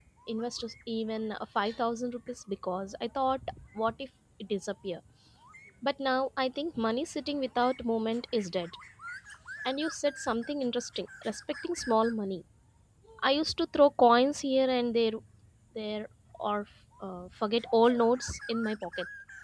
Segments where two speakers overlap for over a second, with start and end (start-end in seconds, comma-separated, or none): none